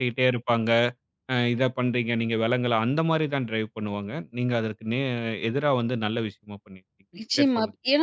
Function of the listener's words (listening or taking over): taking over